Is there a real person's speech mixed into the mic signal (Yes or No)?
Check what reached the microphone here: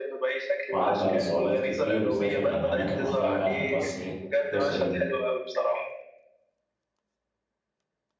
Yes